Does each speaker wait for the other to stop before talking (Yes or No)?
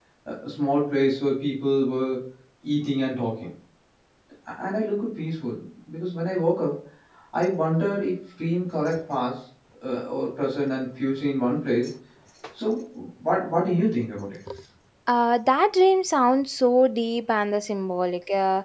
Yes